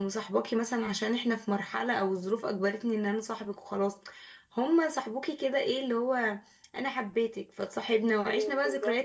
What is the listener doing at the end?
listening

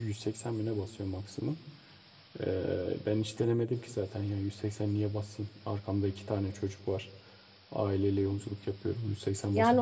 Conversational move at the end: taking over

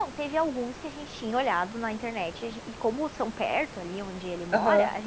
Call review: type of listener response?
listening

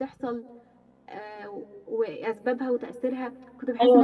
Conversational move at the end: taking over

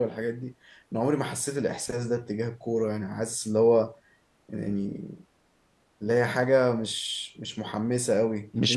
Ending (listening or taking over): listening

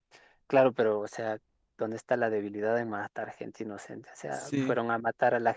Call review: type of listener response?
listening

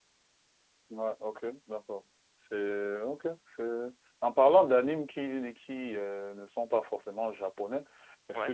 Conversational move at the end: listening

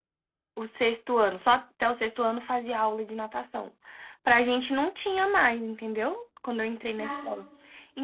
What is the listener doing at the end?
listening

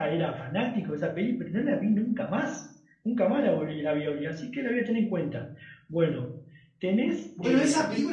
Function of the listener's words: taking over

